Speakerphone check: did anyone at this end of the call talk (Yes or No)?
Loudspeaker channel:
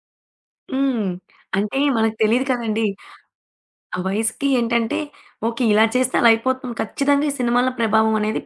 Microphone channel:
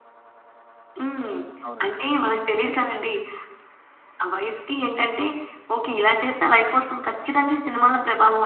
Yes